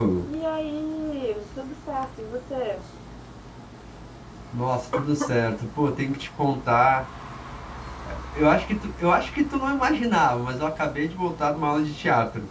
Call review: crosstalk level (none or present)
none